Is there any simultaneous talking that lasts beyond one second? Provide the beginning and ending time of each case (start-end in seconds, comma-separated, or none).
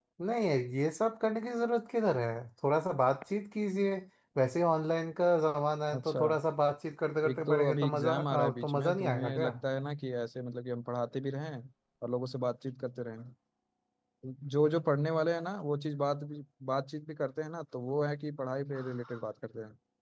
7.3-9.5